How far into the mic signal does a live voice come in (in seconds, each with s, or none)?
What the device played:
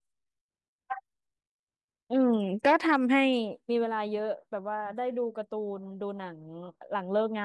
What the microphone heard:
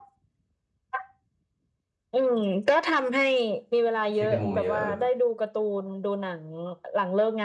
4.1 s